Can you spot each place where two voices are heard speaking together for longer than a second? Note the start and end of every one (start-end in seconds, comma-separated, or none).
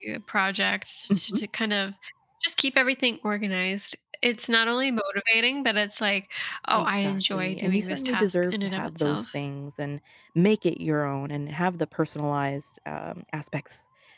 6.7-9.2